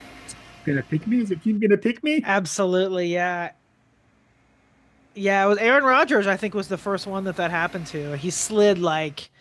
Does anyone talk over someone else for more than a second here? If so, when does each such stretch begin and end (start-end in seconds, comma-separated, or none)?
none